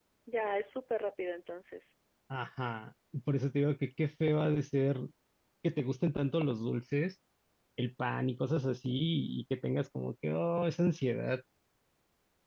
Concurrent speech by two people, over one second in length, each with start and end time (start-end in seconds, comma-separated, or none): none